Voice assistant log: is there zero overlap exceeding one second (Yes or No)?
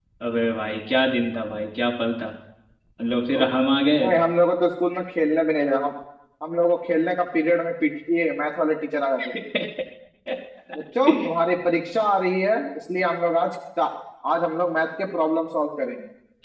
Yes